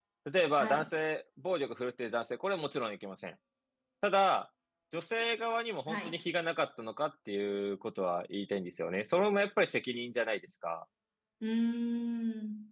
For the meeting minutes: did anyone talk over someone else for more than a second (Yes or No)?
No